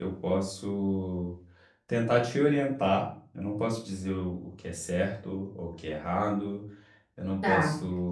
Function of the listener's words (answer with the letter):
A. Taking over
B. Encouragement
B